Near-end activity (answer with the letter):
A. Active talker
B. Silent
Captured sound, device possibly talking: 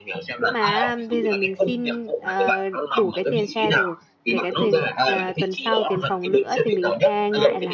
A